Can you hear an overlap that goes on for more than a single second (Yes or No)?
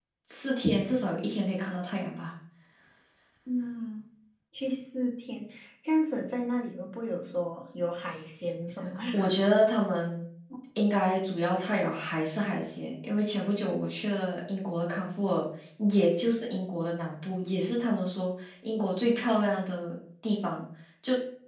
No